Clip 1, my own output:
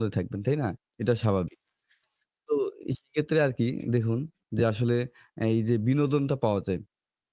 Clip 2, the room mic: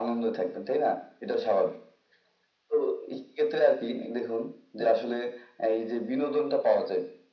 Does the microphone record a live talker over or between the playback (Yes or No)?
No